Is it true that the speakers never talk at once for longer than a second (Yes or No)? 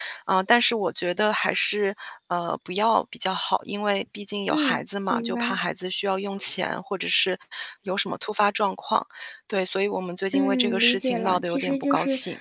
No